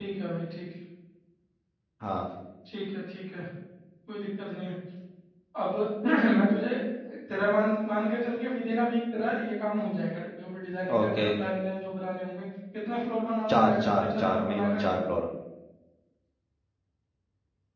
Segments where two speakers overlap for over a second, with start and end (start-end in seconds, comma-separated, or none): 13.5-15.1